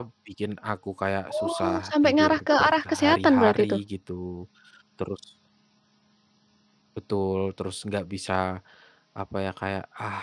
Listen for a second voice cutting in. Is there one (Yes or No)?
Yes